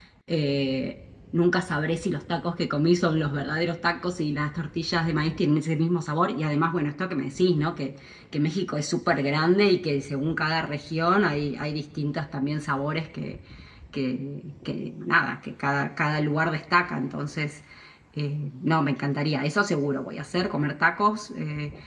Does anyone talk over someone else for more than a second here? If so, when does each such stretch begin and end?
none

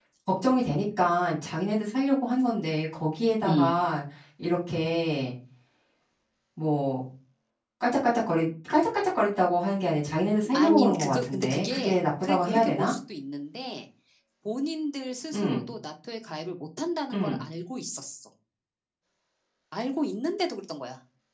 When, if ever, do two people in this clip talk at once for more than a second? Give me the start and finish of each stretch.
10.5-12.9

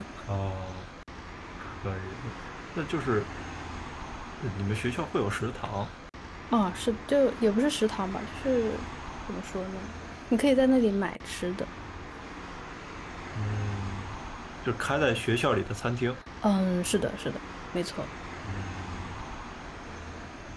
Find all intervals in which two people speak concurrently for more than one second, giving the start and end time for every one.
none

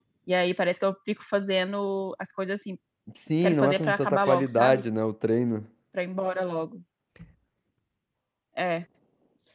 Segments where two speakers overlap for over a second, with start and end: 3.4-4.8

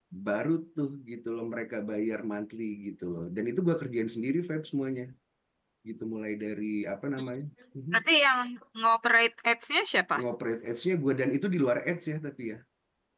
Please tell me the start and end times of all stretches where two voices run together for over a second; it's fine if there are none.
none

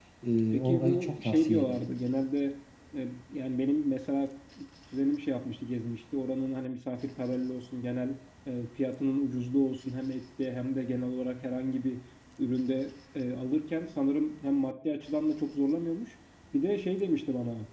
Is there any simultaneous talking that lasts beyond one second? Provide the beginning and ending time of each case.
0.5-1.9

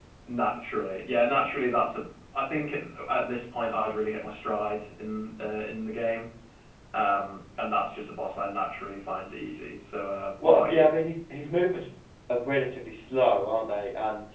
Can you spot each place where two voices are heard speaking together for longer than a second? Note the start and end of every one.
none

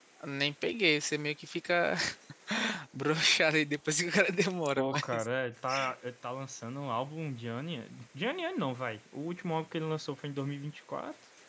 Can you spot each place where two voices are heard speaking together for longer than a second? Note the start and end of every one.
none

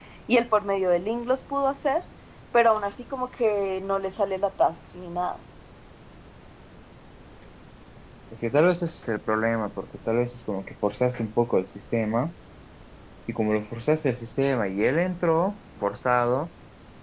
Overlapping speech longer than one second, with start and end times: none

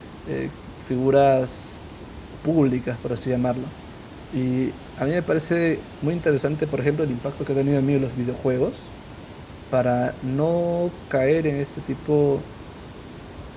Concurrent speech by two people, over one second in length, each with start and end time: none

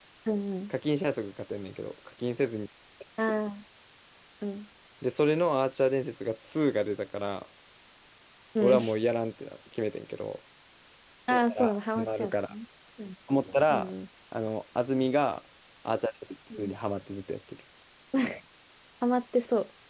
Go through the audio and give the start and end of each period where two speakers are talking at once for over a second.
11.3-12.5

